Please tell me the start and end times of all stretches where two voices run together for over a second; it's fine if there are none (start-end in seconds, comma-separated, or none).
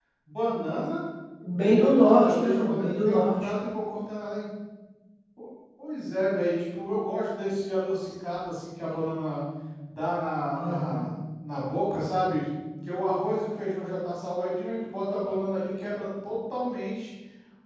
1.6-3.3